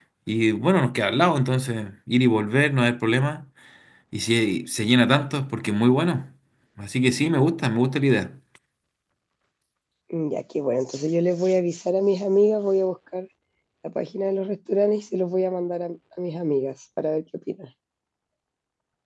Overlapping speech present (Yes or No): No